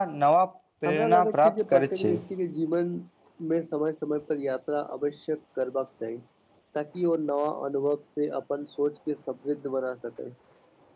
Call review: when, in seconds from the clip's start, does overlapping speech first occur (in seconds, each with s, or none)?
0.9 s